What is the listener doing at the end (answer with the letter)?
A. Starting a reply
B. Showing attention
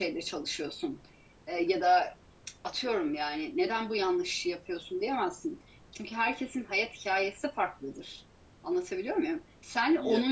B